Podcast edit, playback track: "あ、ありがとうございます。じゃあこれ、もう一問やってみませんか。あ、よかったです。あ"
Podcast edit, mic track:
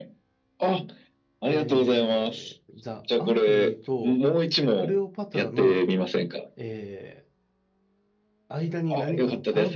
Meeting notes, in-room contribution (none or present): present